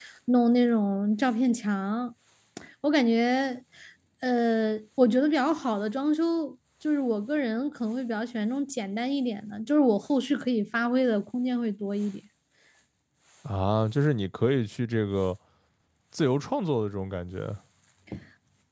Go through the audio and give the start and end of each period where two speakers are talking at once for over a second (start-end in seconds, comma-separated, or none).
none